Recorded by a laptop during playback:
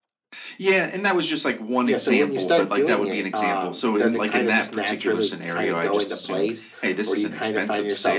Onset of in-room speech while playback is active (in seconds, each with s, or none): 1.8 s